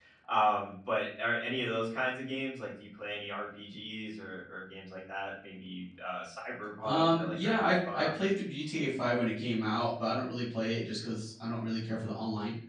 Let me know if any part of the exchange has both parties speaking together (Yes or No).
Yes